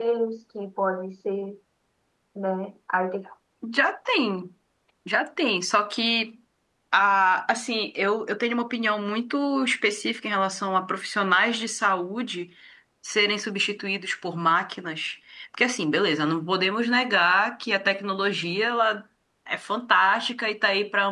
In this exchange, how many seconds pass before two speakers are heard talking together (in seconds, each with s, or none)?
none